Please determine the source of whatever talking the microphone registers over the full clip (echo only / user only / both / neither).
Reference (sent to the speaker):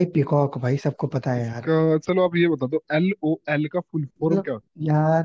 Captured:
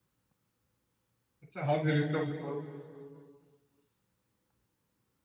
user only